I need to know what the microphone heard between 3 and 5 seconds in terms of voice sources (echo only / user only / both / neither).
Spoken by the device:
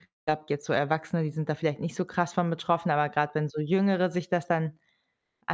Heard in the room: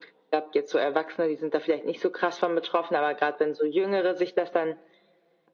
echo only